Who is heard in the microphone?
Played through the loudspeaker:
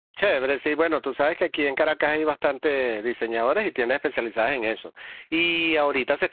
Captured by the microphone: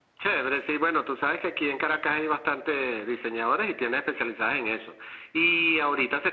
echo only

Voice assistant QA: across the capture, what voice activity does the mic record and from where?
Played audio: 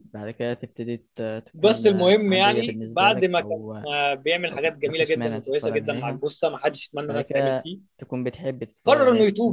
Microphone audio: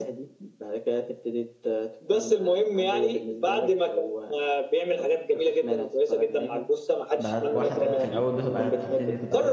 both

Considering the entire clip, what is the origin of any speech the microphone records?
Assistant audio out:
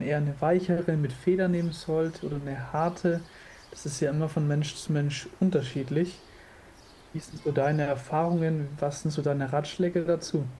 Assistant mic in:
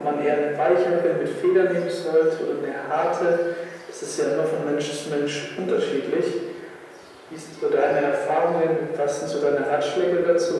echo only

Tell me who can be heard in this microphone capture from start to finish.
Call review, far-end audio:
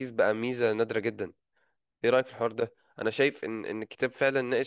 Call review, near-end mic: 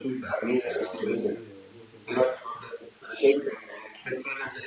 both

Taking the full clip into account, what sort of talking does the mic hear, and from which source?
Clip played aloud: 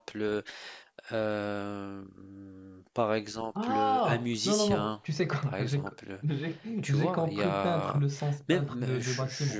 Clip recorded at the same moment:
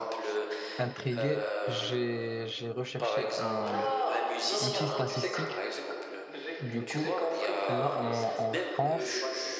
both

